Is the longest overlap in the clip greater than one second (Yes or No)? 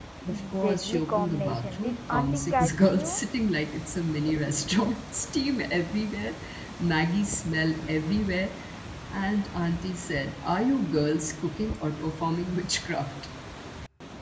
Yes